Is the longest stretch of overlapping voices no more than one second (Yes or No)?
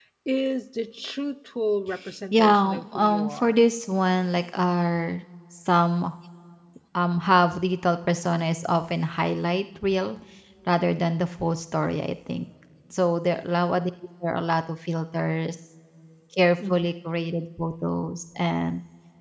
No